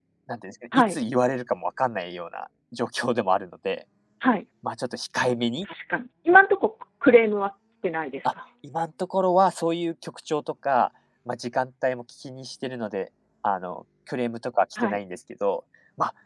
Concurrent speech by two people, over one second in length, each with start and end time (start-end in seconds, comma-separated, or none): none